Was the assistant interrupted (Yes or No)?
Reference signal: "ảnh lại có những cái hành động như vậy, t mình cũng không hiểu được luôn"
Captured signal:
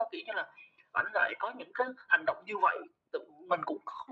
No